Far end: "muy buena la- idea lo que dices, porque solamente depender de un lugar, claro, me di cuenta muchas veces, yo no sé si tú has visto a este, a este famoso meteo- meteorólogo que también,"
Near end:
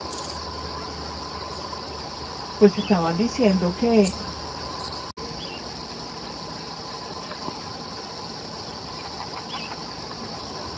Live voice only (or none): pues estaban diciendo que